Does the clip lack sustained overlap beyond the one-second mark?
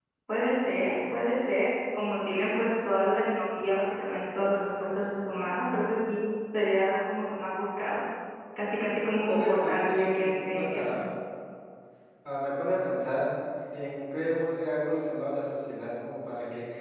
No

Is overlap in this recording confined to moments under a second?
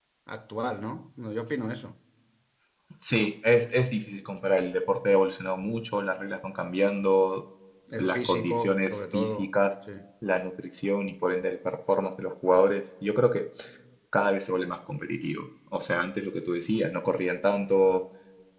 No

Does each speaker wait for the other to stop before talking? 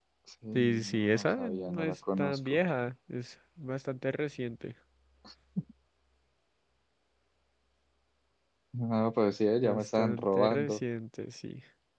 No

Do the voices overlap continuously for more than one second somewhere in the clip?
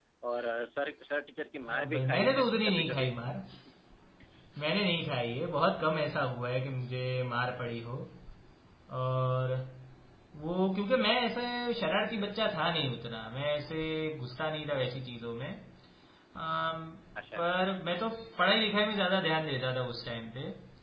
Yes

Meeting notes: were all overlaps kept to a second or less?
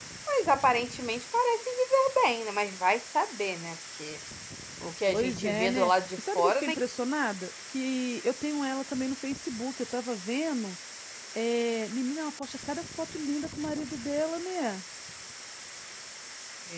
No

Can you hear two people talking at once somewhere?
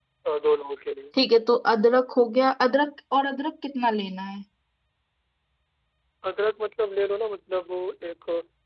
No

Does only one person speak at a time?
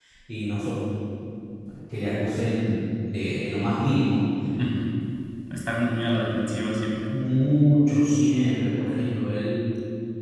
Yes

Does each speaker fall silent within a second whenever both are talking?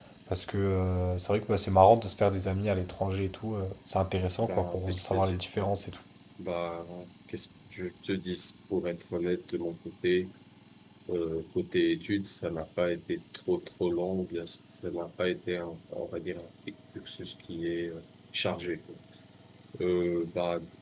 No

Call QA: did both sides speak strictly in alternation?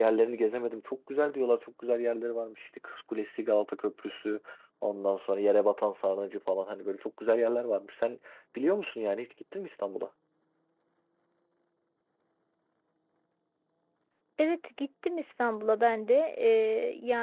Yes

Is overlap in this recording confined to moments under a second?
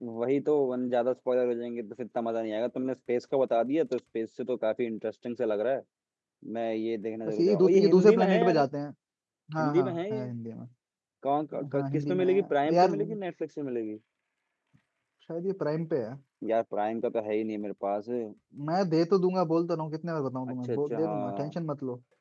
No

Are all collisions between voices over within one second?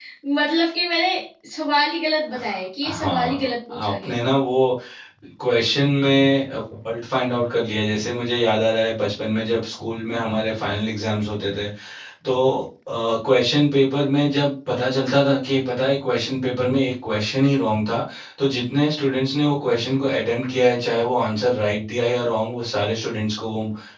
No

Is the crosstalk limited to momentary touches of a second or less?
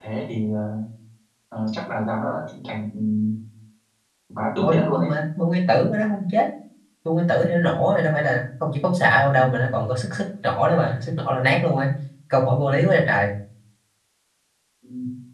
Yes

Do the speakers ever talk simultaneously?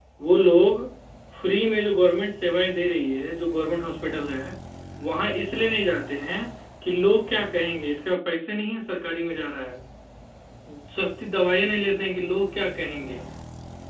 No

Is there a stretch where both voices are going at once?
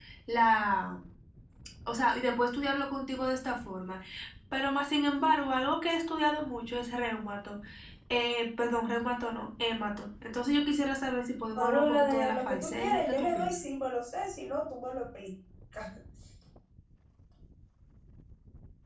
Yes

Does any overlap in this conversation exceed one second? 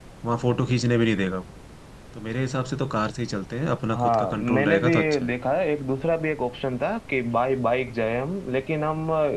Yes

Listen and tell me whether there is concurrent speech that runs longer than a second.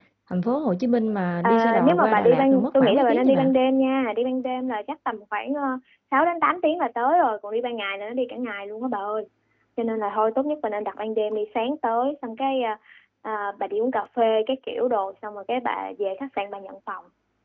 Yes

